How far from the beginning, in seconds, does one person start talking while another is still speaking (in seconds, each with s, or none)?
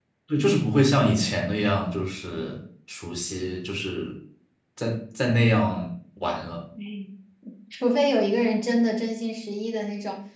none